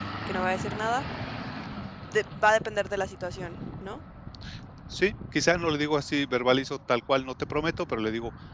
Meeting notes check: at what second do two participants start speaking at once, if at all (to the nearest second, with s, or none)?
none